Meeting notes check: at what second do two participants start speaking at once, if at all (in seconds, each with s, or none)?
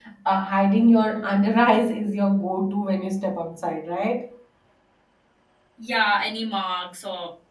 none